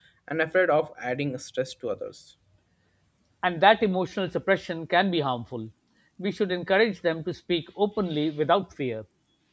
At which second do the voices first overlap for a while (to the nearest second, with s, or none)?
none